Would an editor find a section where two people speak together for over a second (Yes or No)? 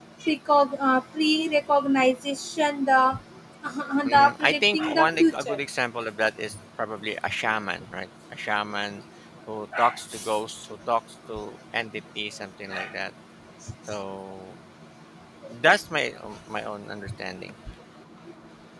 Yes